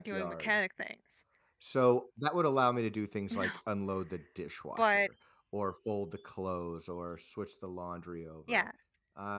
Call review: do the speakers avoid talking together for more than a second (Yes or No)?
Yes